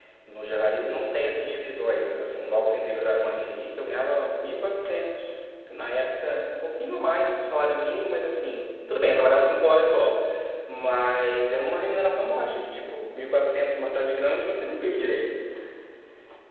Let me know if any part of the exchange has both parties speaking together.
No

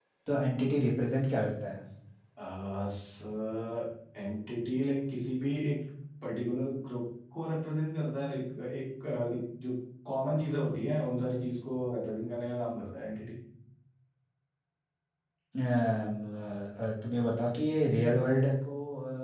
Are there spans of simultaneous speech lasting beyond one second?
No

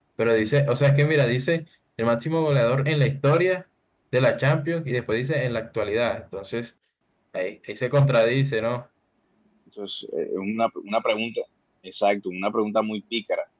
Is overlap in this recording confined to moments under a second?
Yes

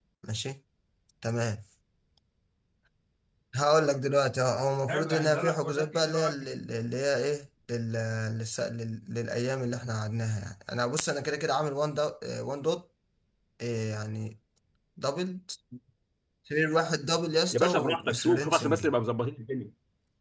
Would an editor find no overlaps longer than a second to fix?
No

